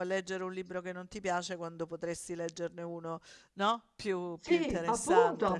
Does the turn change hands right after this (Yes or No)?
Yes